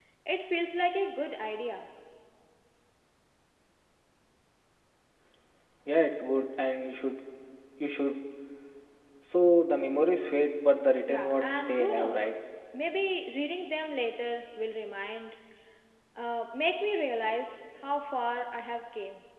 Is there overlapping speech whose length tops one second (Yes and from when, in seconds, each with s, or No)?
Yes, from 11.1 s